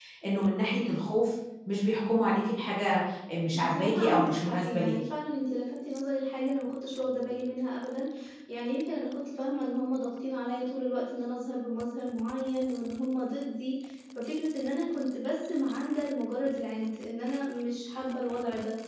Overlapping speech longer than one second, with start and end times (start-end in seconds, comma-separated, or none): 3.5-5.0